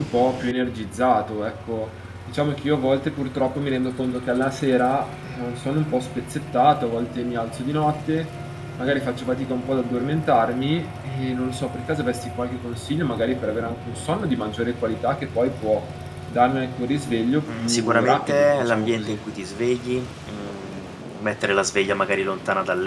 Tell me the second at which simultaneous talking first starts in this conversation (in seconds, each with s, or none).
17.4 s